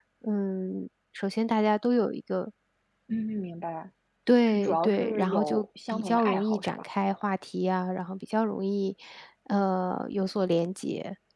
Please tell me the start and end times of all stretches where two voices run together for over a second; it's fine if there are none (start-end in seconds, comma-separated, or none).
4.5-6.8